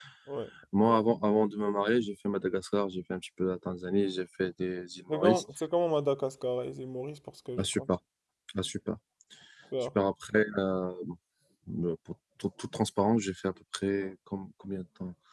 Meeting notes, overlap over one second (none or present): none